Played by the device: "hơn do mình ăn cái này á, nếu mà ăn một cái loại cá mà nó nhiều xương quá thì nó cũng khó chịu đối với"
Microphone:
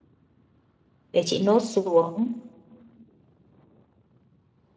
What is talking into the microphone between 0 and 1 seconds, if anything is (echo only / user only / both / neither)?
neither